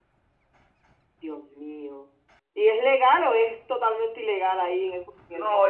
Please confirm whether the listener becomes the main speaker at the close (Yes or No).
Yes